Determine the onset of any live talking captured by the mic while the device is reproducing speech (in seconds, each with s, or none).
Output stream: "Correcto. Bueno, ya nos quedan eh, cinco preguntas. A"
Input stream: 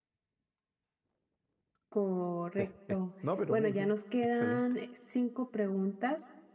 2.6 s